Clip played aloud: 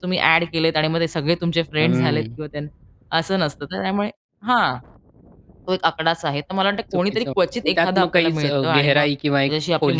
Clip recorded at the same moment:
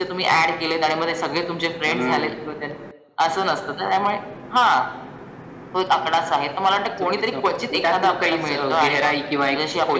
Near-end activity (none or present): none